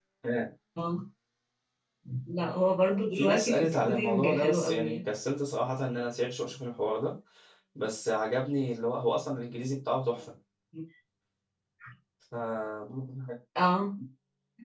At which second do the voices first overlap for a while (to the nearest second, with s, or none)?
3 s